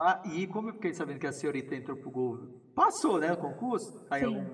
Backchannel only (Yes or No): Yes